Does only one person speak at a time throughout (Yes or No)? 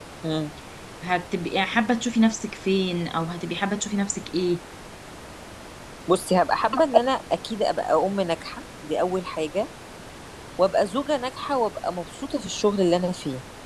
Yes